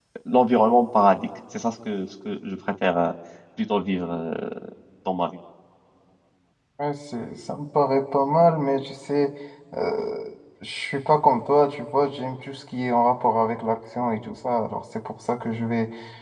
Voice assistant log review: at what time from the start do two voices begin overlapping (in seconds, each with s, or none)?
none